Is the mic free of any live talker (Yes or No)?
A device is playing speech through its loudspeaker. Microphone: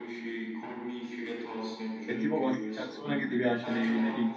No